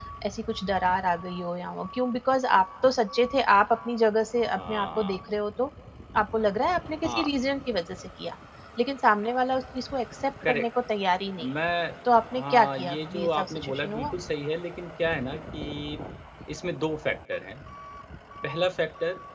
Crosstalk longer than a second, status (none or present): present